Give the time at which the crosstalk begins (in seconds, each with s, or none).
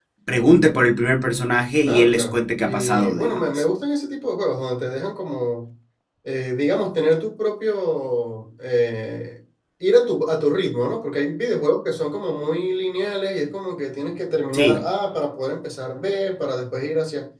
1.8 s